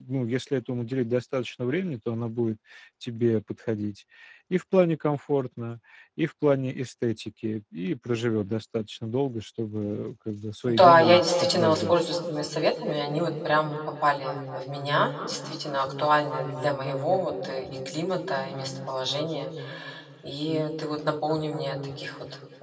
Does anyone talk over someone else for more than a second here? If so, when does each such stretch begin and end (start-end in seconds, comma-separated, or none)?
10.7-12.0